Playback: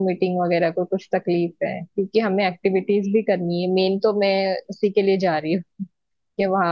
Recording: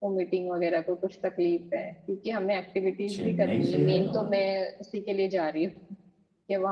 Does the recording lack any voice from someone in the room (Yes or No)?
No